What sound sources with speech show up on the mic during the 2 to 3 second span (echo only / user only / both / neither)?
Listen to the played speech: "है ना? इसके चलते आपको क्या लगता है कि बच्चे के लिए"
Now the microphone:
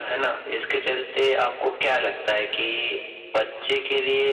echo only